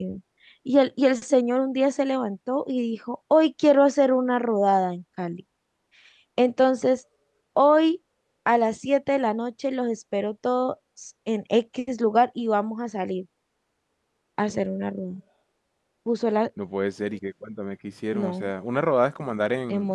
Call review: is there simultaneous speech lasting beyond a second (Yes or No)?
No